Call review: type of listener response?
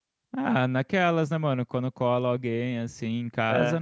listening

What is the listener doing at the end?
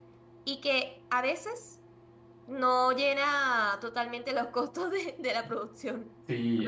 taking over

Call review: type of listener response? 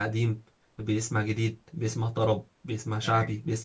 listening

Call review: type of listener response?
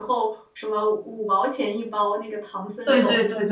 taking over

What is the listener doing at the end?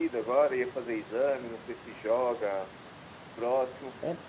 listening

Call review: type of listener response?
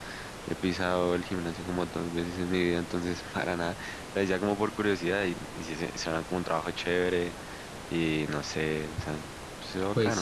taking over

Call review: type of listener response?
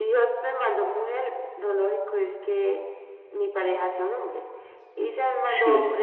listening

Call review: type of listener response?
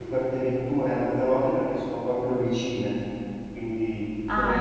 listening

